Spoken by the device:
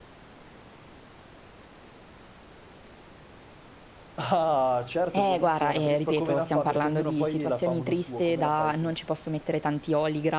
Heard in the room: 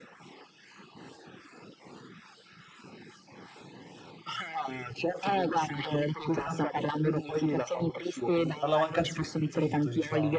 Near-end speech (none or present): present